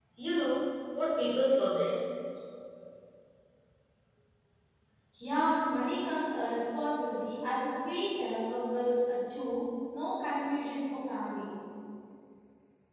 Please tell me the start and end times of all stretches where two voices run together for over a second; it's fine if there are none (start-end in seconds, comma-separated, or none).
none